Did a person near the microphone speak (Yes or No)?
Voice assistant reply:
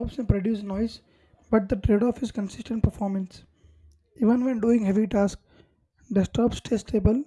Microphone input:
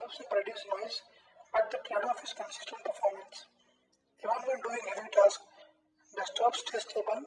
No